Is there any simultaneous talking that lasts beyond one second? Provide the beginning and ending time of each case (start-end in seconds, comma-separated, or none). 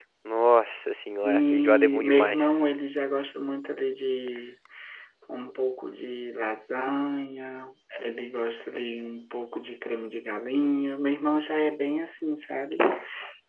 1.2-2.6